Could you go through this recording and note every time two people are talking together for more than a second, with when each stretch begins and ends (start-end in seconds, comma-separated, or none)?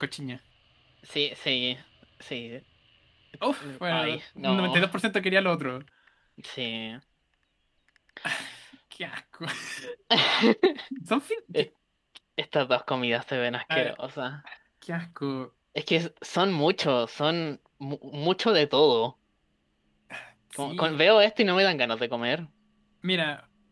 3.6-4.8